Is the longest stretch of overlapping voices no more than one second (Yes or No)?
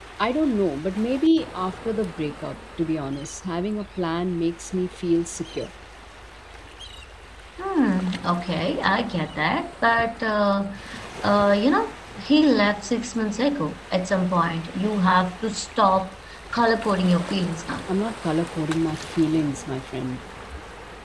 Yes